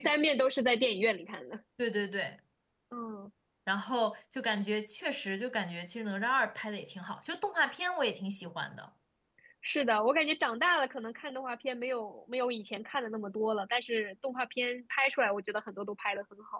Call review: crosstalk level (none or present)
none